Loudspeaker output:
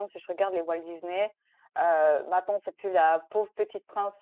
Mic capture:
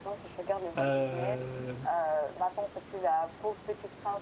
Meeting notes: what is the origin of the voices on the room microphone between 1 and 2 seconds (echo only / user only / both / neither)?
both